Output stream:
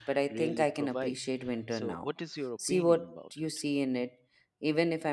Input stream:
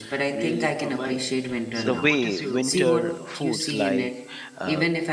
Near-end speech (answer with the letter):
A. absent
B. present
B